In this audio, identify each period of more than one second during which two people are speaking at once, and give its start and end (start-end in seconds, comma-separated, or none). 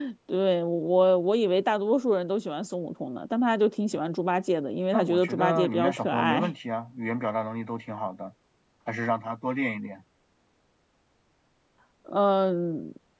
4.9-6.5